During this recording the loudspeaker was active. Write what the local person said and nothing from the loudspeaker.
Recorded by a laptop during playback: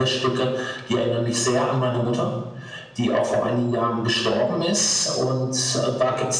none

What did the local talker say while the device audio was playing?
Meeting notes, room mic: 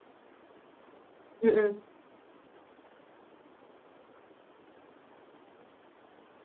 Ừm, ừm.

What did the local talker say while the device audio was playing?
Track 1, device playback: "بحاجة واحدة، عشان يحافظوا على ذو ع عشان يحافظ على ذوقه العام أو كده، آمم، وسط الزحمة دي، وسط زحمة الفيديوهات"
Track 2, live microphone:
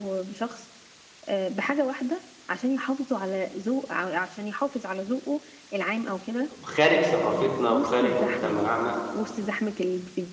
خارج ثقافتنا وخارج مجتمعنا،

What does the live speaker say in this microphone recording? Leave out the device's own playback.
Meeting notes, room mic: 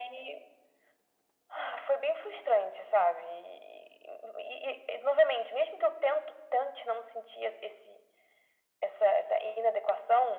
none

